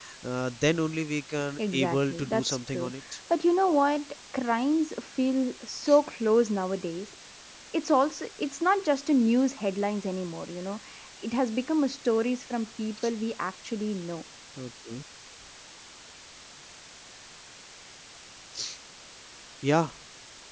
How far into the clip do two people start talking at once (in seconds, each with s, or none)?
1.6 s